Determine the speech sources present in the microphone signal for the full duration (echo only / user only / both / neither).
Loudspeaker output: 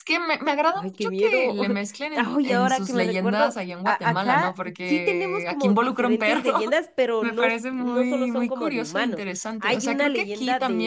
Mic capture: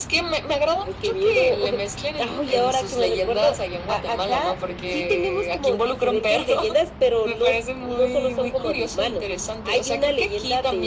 echo only